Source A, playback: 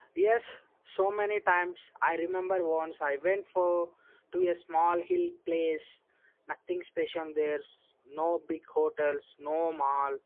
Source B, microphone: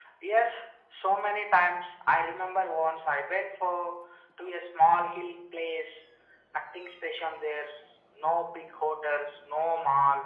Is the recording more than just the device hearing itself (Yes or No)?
No